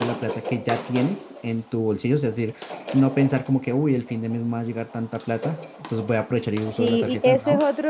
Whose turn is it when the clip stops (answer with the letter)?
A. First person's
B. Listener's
B